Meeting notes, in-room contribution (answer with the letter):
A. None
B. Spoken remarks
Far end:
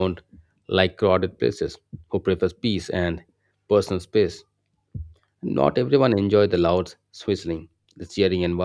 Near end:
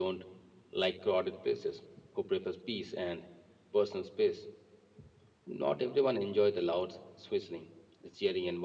A